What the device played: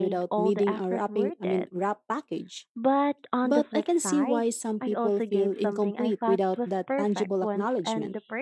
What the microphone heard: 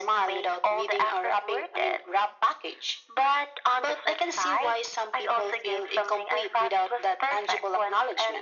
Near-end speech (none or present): none